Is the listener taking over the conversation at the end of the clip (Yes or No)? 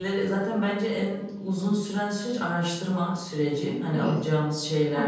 No